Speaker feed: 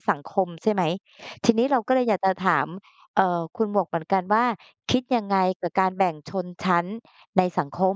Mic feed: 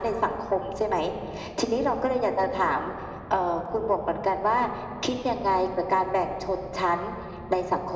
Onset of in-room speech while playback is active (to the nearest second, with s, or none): none